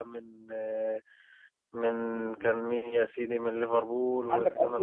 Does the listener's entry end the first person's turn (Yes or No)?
Yes